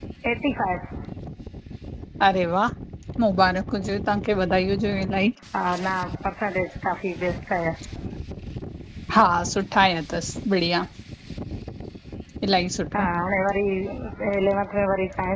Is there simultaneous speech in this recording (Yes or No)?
No